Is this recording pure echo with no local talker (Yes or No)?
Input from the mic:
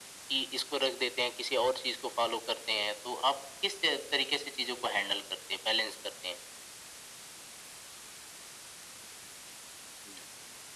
Yes